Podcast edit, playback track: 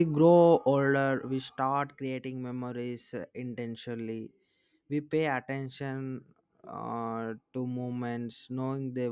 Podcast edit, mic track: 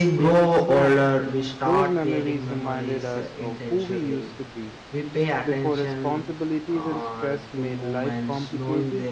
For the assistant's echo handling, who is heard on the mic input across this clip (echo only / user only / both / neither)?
both